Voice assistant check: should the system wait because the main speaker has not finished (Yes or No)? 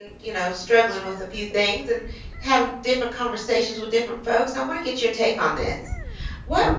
Yes